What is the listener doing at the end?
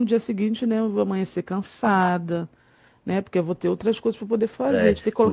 taking over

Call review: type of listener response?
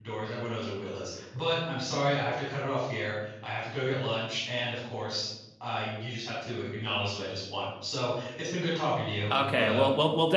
taking over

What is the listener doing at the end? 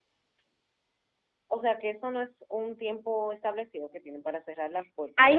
taking over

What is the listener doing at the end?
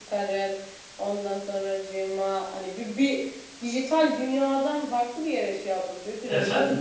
taking over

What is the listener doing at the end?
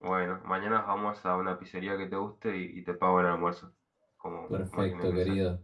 taking over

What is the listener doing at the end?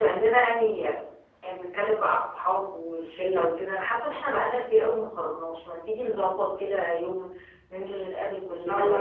listening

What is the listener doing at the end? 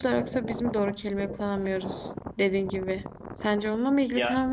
listening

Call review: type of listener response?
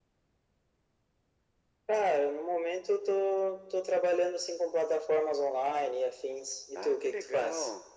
taking over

